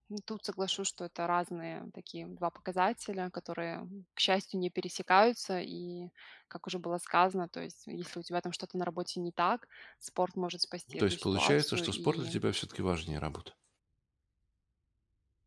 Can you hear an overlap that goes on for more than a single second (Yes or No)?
Yes